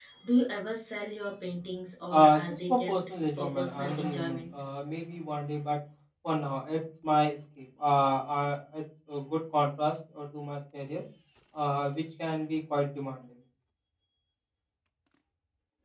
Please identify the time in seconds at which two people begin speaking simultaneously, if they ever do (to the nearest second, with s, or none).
2 s